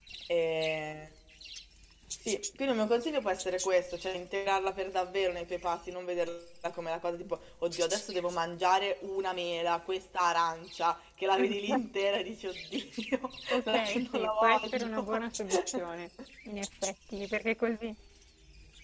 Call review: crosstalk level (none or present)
present